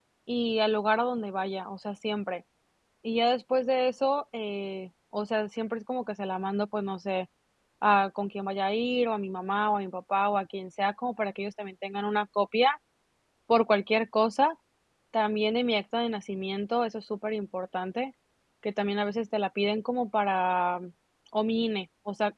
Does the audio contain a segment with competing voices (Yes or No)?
No